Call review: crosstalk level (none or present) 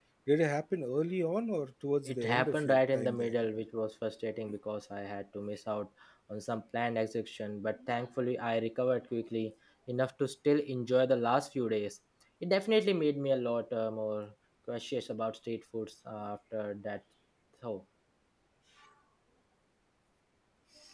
present